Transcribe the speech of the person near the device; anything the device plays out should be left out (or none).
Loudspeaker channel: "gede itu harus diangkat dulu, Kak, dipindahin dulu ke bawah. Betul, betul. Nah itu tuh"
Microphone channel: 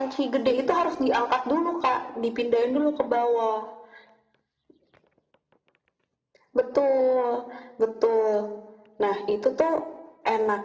none